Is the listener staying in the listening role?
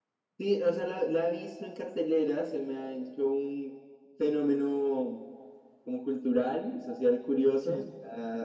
Yes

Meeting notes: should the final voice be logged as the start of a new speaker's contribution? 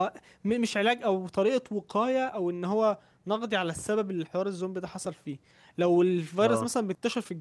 No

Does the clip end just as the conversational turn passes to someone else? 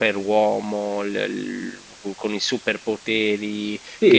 Yes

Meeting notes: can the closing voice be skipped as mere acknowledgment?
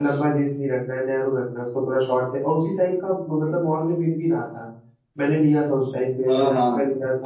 No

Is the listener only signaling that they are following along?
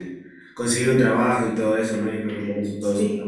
Yes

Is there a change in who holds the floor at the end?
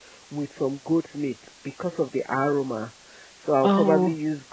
No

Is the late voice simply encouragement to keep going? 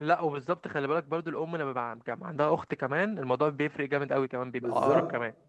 No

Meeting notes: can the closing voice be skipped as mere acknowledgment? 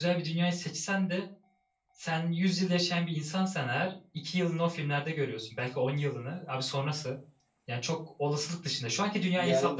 No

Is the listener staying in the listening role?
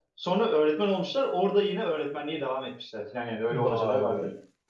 No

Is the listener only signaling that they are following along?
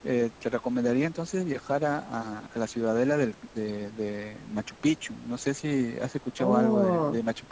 No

